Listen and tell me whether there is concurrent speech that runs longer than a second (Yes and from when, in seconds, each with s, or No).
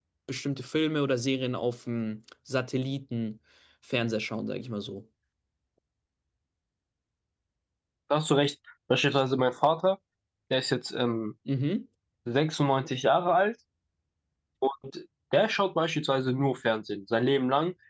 No